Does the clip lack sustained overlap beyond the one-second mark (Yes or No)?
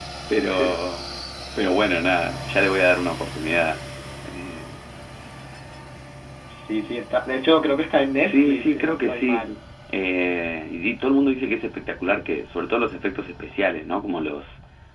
No